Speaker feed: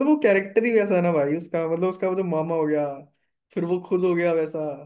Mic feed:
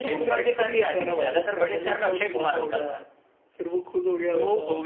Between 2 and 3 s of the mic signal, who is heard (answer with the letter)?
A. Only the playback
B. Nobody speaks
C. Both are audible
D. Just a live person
C